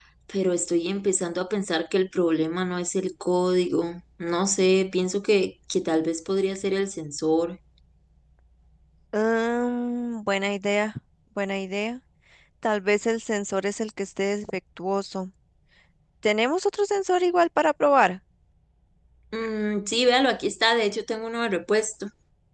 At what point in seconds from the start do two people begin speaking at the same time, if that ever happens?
none

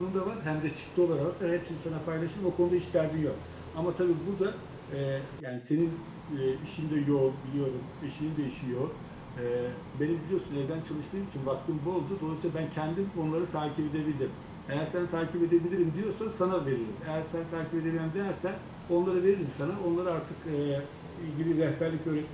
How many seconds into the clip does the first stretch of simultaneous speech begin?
none

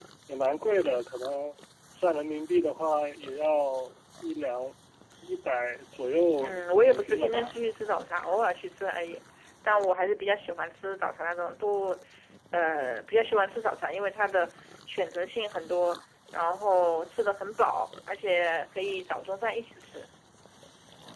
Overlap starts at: 6.4 s

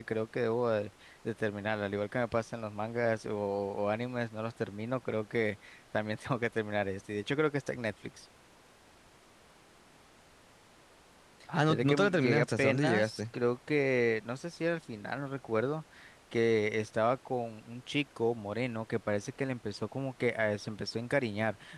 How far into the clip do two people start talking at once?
11.7 s

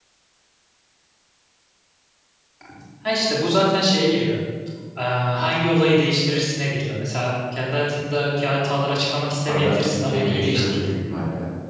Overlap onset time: 9.4 s

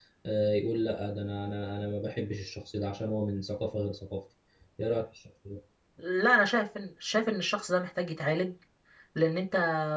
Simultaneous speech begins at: none

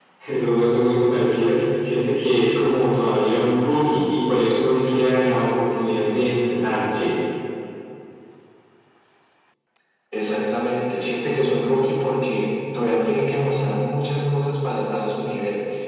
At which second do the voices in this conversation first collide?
none

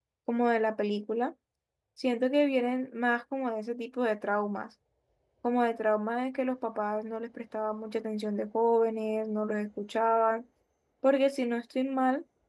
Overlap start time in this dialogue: none

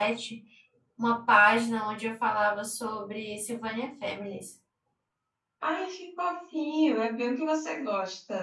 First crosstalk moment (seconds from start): none

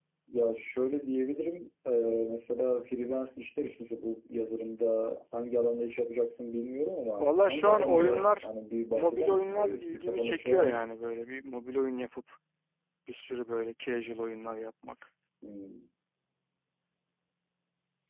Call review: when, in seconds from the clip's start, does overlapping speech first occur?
7.2 s

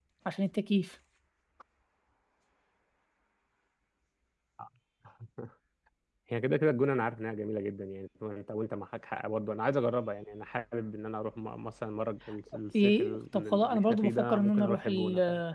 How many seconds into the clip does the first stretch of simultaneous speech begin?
12.7 s

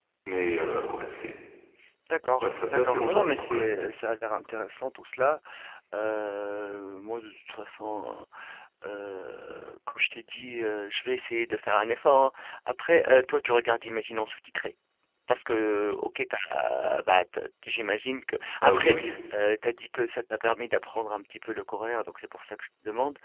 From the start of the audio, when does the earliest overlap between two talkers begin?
2.4 s

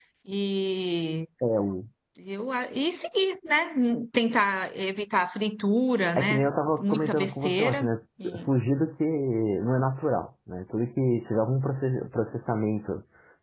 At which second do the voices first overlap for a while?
6.2 s

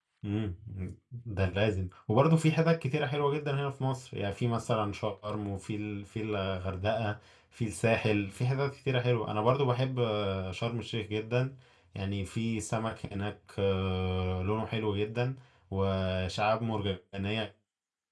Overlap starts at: none

